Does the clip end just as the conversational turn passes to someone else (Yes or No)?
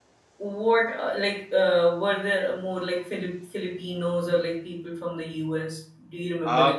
Yes